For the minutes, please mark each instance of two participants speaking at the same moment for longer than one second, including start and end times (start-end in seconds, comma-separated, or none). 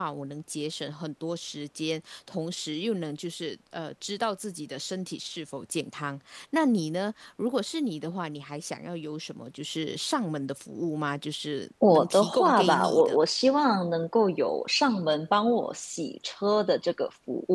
11.9-13.2